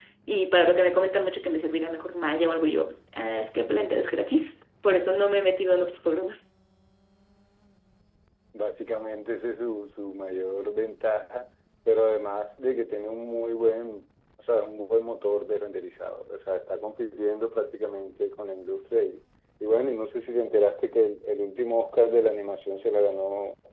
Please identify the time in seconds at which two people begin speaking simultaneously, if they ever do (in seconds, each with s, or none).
none